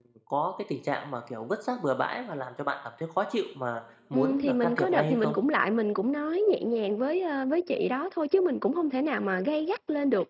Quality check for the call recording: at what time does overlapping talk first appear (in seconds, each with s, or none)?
4.1 s